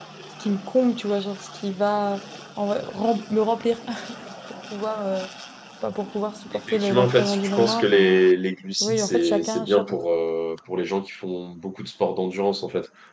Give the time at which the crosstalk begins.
6.7 s

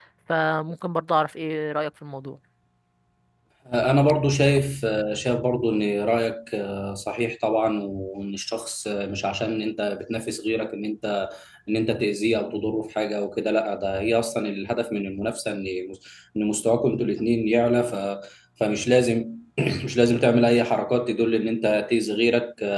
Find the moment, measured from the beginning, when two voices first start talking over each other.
none

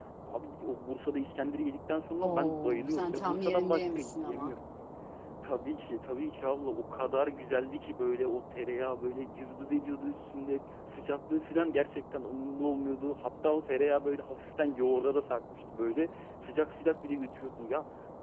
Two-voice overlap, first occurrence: 2.2 s

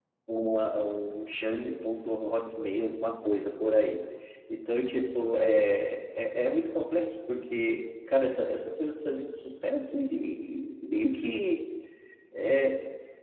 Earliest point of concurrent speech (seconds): none

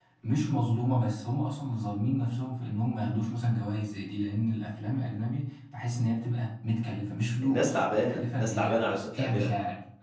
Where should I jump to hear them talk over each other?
7.4 s

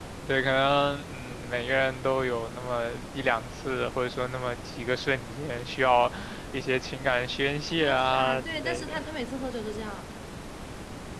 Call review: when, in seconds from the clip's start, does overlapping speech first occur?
7.8 s

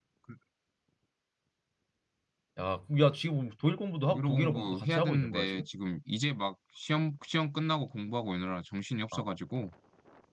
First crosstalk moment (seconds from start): 4.1 s

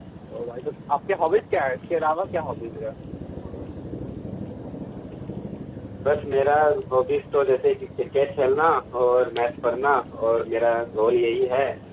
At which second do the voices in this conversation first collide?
none

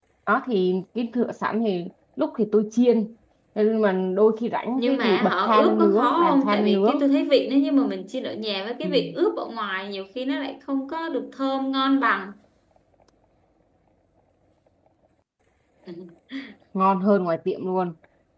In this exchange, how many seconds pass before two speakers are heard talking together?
4.8 s

